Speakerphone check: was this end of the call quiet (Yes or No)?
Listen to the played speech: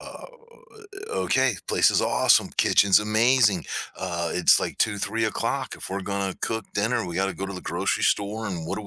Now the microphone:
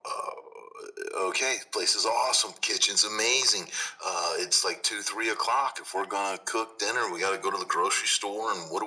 Yes